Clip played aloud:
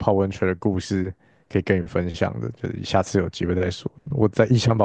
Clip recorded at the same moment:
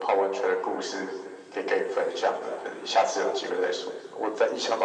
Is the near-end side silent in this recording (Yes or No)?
Yes